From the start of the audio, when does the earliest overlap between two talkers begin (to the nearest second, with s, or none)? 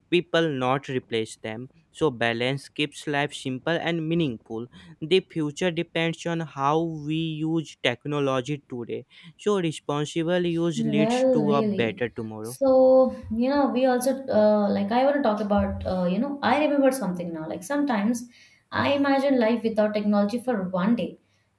11 s